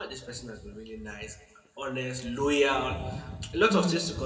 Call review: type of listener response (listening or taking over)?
listening